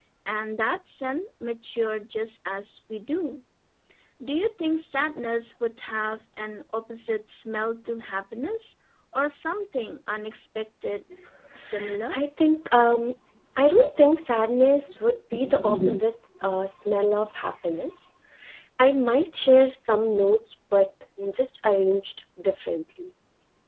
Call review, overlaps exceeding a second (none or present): none